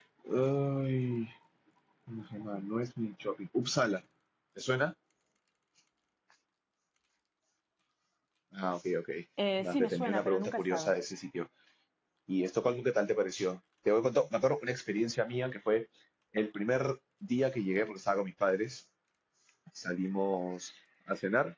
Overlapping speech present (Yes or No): Yes